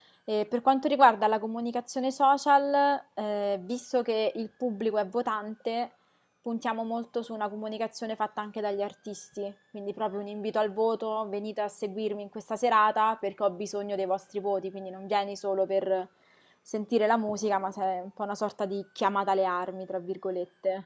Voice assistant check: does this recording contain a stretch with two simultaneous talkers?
No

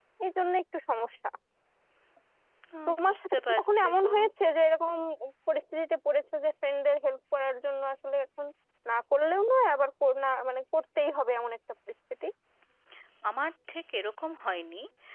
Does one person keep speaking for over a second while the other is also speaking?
Yes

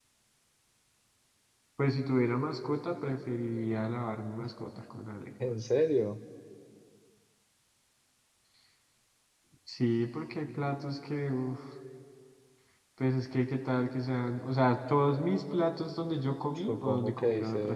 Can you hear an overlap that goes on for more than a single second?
Yes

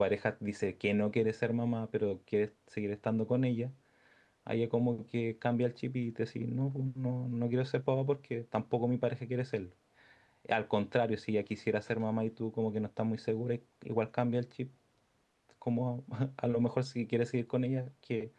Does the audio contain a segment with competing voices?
No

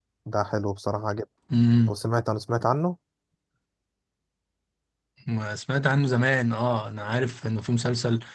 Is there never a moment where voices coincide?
Yes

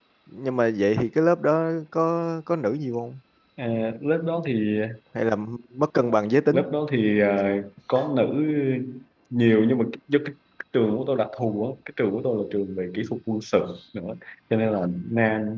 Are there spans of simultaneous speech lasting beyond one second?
No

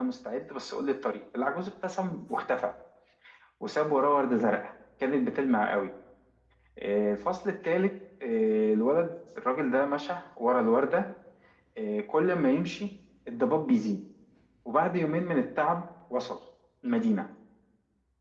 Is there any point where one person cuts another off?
No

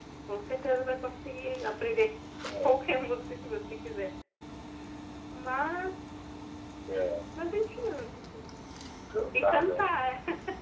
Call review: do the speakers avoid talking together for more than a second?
Yes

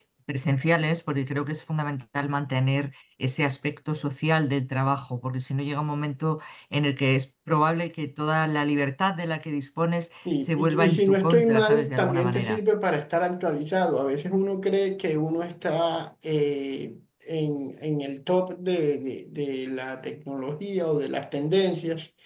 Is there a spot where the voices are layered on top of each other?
Yes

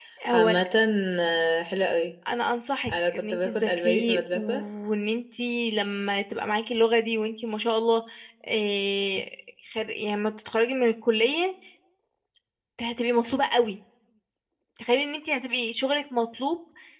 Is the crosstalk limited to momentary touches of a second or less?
No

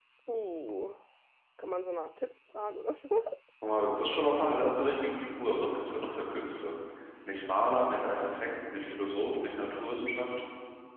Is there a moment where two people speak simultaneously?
No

